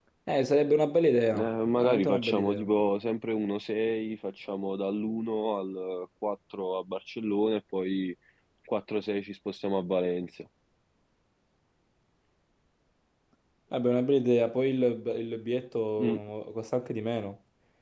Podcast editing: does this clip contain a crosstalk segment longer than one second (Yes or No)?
Yes